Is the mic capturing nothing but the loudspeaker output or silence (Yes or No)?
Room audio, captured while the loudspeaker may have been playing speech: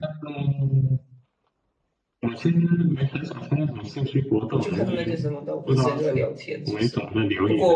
No